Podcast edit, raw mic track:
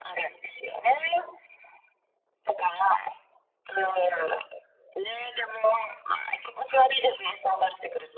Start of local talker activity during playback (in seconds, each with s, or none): none